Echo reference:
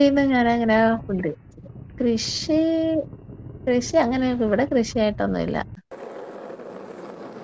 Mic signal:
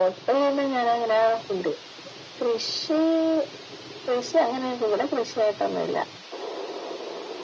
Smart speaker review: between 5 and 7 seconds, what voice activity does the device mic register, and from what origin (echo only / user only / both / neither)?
echo only